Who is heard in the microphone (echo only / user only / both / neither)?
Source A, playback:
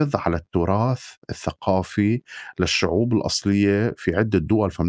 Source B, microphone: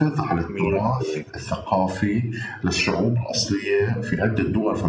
both